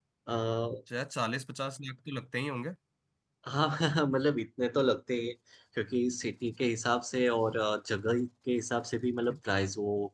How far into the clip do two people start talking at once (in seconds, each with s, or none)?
none